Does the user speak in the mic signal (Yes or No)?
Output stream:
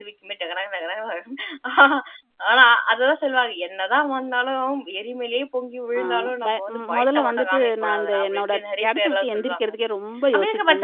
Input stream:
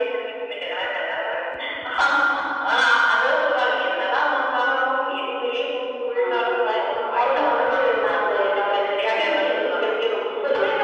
No